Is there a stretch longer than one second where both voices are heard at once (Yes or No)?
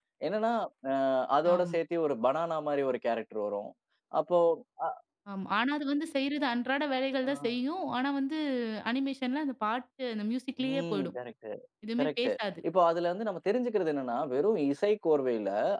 No